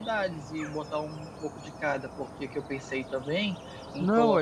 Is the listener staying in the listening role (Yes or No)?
No